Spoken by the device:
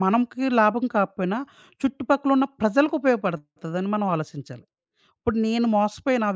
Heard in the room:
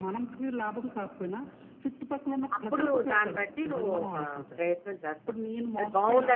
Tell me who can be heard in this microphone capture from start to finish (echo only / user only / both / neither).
both